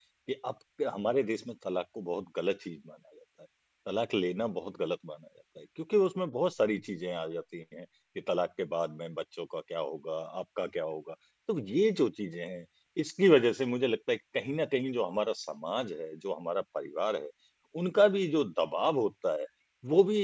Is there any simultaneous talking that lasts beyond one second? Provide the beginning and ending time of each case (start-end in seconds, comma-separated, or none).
none